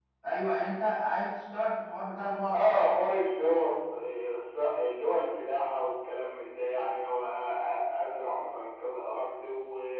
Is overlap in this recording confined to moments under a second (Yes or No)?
Yes